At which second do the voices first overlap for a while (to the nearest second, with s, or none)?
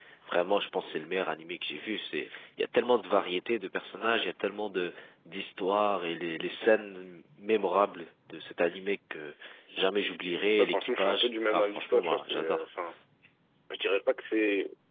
11 s